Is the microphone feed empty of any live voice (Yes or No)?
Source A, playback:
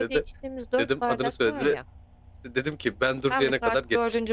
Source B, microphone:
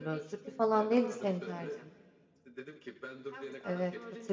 No